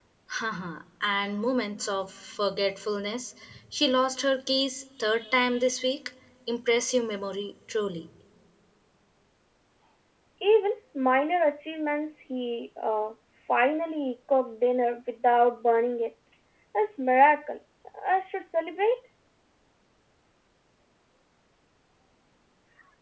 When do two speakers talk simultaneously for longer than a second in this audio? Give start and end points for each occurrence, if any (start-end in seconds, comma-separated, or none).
none